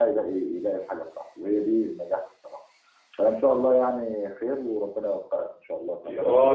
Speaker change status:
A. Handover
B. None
A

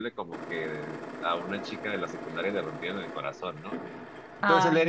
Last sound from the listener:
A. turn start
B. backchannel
B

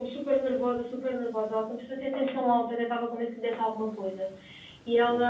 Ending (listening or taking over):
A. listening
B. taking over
A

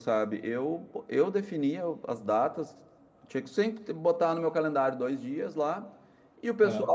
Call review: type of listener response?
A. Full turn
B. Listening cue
B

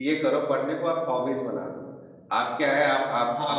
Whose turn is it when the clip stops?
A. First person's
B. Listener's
A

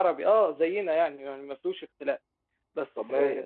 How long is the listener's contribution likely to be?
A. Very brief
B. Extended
A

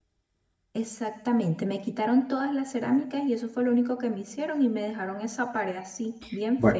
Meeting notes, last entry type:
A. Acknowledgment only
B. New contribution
B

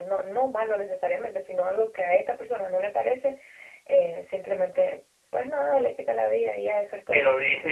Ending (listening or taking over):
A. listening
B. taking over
B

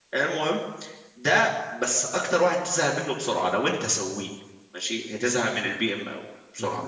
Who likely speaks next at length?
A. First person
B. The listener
B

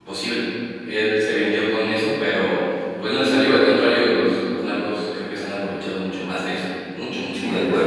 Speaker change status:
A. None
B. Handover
B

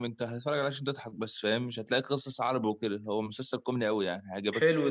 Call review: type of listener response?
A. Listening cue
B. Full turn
B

